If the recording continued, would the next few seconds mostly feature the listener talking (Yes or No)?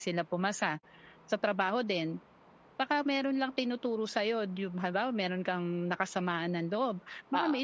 No